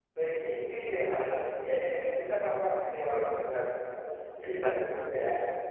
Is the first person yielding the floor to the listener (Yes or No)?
No